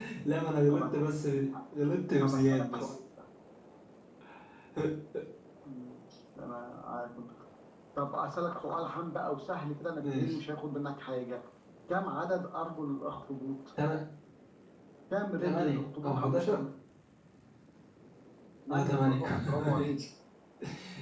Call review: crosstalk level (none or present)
present